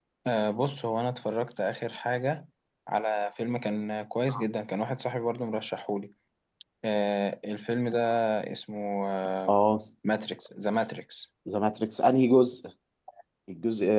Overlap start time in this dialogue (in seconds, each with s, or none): none